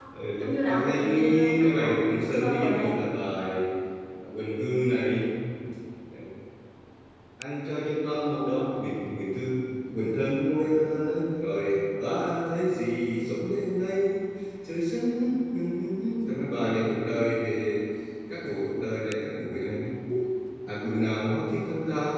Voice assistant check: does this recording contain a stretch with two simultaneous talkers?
Yes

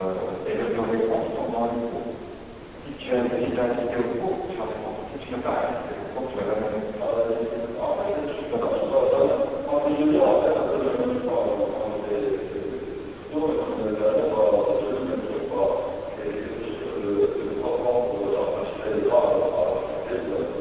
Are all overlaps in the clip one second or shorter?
Yes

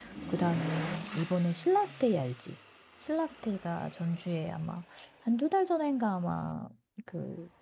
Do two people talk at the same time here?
No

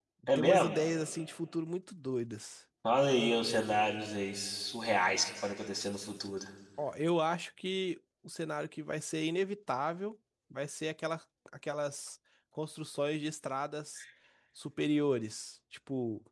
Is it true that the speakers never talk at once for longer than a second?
Yes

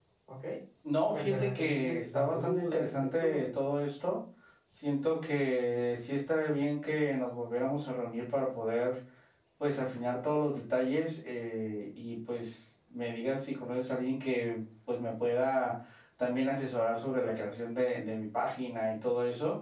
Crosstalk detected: Yes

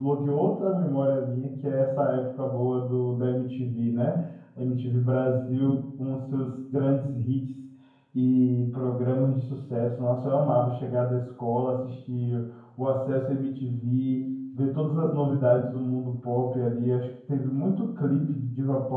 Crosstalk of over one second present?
No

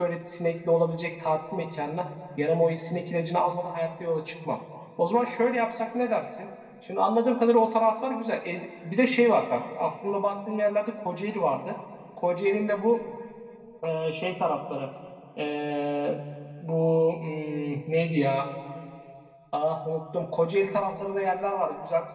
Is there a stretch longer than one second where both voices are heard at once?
No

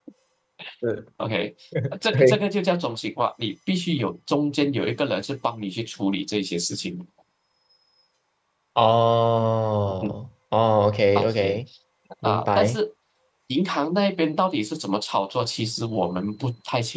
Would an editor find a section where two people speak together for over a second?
No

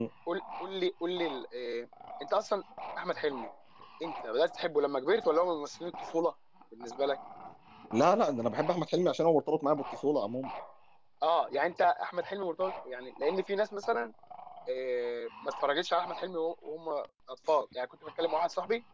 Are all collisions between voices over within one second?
Yes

